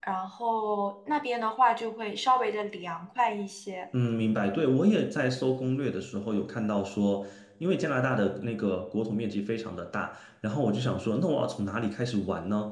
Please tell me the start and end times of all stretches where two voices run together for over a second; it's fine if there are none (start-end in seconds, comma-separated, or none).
none